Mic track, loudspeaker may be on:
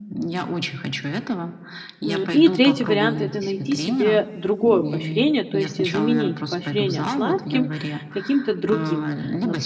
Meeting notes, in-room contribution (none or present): present